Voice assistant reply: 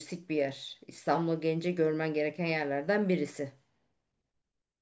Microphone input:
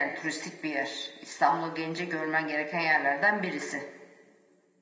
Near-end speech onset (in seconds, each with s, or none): none